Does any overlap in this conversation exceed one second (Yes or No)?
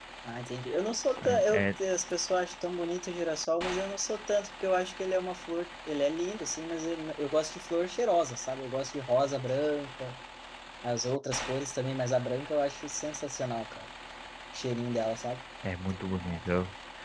No